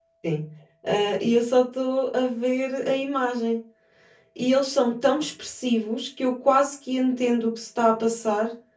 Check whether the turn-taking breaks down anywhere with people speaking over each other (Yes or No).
No